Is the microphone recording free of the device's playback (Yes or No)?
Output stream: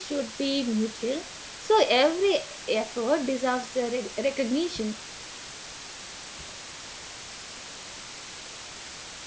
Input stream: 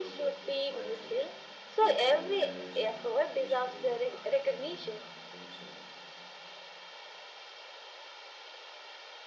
No